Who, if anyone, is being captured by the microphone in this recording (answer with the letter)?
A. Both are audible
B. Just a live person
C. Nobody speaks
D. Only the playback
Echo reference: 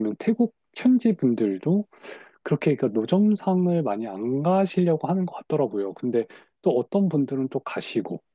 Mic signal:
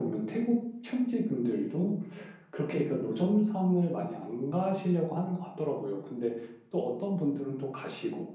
D